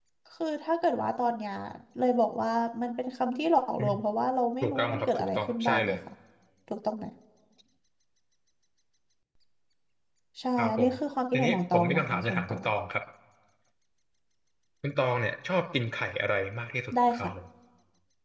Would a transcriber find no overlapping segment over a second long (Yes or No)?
No